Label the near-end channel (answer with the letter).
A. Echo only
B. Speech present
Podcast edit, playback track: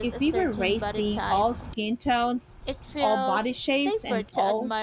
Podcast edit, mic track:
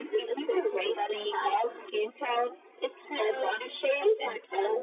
A